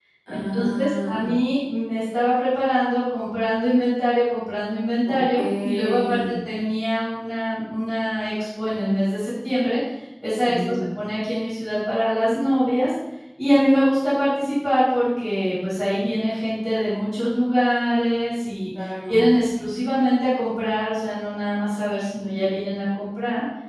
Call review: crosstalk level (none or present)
present